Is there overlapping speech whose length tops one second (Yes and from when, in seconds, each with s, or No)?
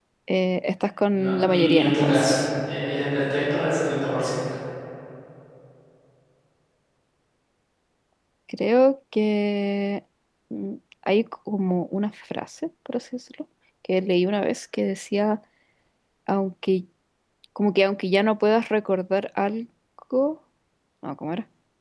Yes, from 1.1 s